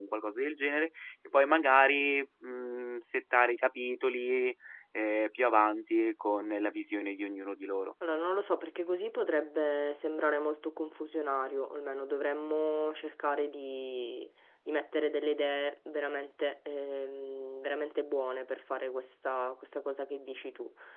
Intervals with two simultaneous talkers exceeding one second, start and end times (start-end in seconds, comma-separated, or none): none